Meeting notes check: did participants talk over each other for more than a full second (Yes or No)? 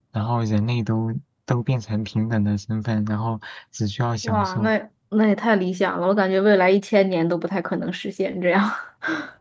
No